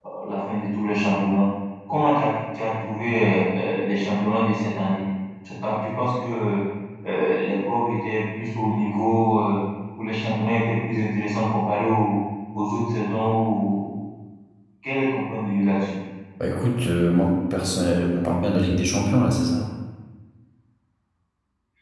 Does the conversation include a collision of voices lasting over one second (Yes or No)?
No